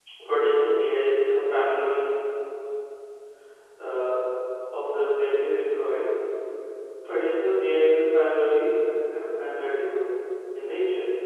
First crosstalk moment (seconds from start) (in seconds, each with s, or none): none